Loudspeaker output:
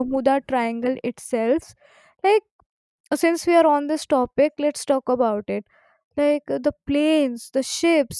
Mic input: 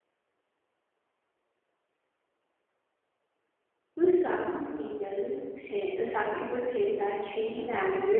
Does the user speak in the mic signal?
Yes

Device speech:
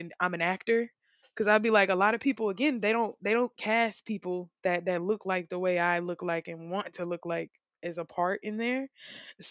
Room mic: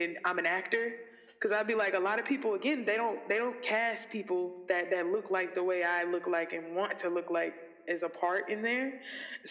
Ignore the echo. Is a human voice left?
No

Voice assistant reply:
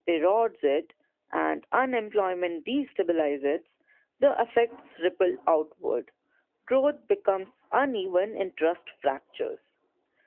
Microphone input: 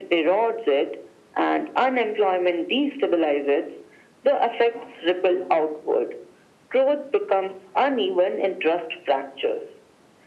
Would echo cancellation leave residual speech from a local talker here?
No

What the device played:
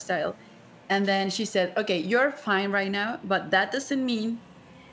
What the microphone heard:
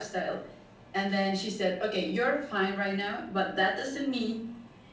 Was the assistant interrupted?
No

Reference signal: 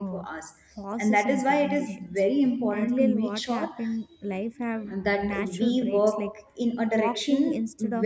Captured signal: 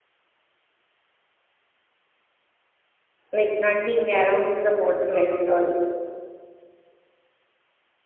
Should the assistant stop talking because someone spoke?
Yes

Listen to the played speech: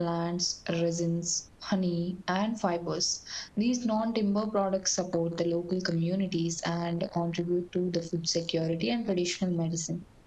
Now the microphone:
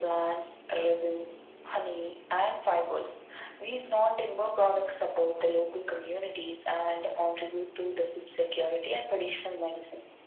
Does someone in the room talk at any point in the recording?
No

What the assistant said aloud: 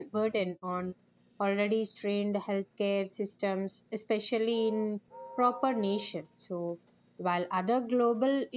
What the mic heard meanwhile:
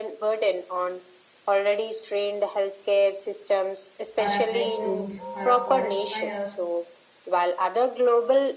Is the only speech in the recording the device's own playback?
No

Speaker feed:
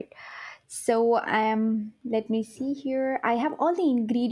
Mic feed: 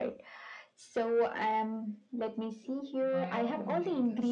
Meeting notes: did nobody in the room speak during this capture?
No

